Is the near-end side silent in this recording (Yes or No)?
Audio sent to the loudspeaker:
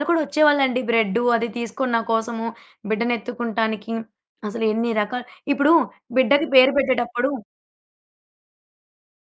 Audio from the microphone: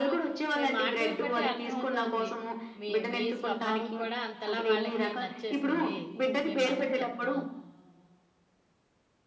No